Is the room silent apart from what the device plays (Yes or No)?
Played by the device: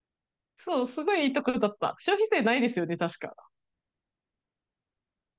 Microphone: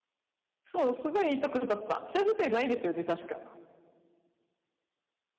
Yes